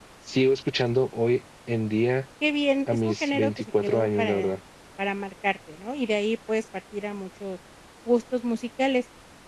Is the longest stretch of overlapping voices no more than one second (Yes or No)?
No